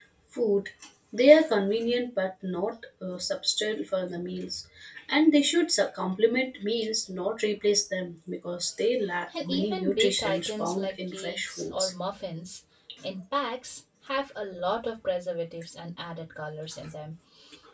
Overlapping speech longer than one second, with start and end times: 9.4-11.9

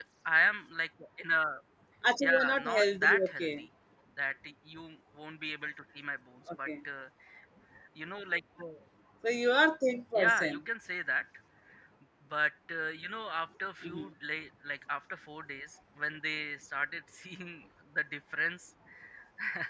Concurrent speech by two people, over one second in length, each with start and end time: 2.2-3.5

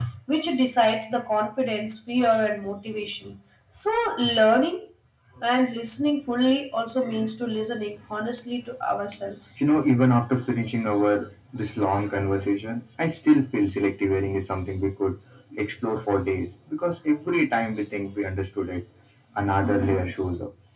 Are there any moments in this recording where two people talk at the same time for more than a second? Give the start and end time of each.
none

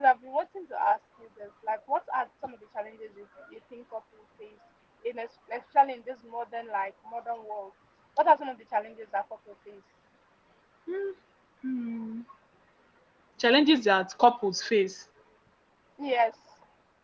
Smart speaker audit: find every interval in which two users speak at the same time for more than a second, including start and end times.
none

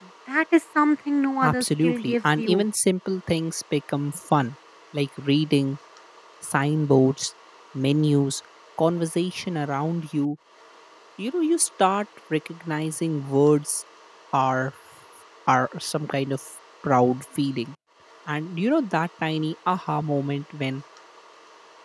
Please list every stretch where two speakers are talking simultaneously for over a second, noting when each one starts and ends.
1.4-2.6

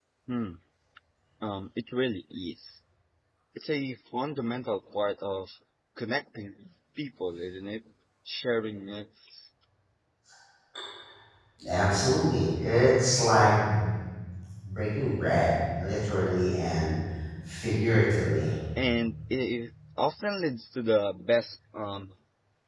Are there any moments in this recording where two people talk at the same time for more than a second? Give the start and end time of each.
none

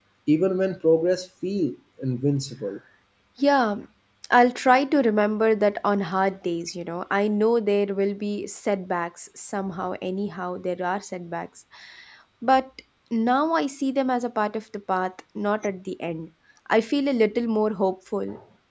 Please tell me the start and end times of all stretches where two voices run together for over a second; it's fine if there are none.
none

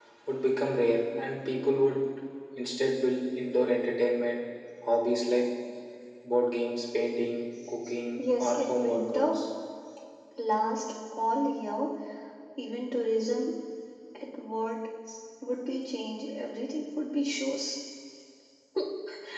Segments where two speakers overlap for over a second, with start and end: 8.2-9.4

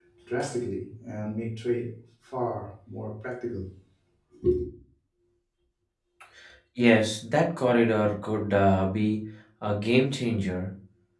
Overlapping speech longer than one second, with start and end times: none

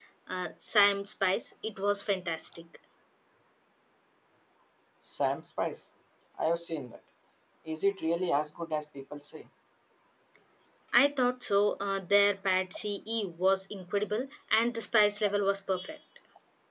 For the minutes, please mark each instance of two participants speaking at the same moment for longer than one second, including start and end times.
none

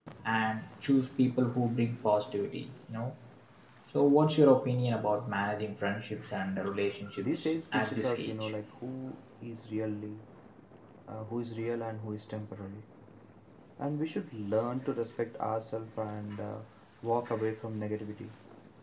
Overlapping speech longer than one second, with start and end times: 7.2-8.5

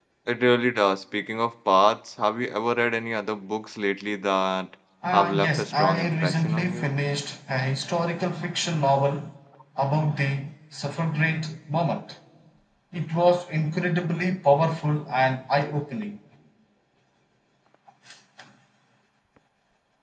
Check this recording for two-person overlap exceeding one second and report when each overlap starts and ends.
5.1-6.9

